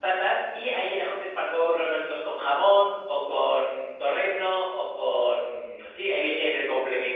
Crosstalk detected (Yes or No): No